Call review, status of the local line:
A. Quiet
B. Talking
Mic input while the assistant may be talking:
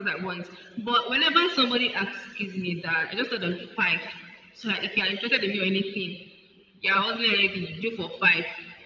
A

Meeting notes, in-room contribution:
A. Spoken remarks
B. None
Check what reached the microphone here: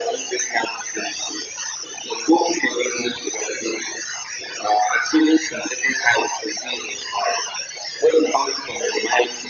B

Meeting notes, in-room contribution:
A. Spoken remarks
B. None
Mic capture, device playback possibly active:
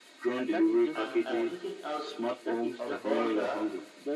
A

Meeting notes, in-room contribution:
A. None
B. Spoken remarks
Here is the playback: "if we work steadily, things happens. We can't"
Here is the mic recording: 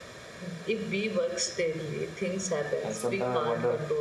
B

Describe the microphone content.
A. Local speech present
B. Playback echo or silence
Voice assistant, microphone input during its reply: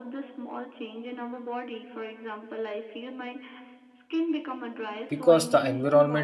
A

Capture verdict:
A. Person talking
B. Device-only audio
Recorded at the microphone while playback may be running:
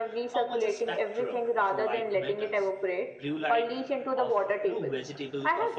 A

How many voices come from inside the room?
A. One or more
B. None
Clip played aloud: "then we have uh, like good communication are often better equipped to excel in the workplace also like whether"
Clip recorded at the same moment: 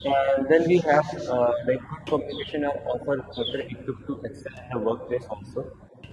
B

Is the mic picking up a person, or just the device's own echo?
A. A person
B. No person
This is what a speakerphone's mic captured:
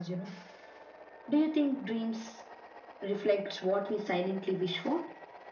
B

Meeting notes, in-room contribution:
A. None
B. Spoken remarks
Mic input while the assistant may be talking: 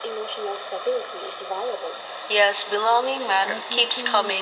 B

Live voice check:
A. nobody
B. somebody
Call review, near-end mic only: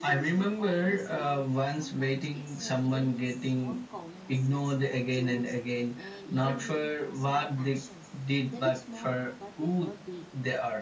B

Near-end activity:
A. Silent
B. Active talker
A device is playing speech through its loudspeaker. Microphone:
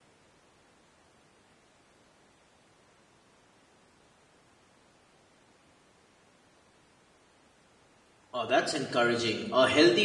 B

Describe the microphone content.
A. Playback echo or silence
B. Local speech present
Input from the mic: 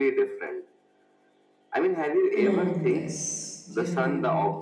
B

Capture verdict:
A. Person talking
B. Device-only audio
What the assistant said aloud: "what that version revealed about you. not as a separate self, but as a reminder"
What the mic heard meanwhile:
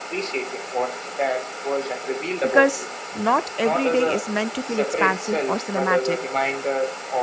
A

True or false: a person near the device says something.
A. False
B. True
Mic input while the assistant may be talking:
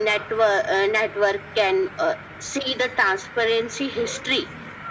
A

